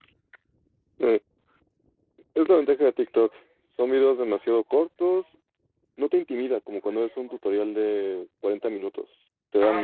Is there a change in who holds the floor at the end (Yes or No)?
Yes